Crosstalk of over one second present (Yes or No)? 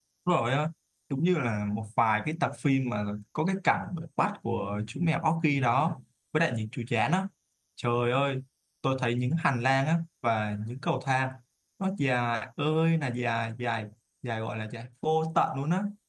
No